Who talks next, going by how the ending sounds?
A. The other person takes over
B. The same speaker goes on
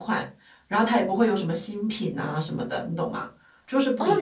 A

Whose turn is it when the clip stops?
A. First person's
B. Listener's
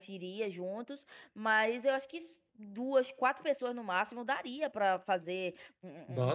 A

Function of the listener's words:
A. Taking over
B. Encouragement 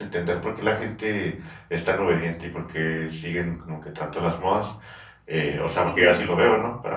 B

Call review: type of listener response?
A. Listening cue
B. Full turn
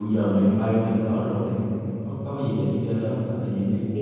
B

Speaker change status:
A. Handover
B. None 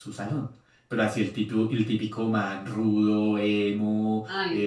B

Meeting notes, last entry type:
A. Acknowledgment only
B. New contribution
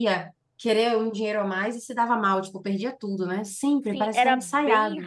B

